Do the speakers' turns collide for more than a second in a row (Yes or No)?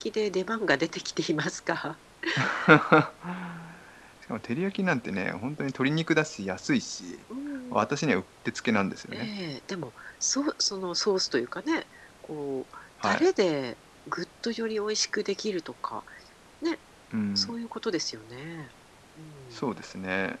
No